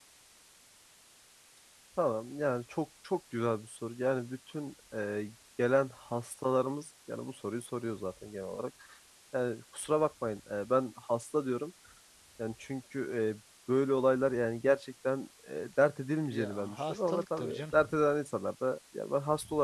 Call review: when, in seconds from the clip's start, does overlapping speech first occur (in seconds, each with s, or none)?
16.3 s